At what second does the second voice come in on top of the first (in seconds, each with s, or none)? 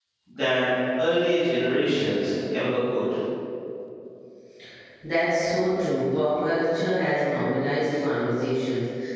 none